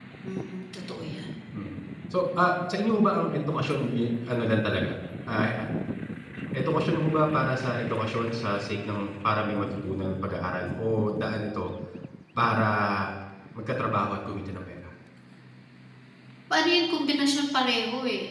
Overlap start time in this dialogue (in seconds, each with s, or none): none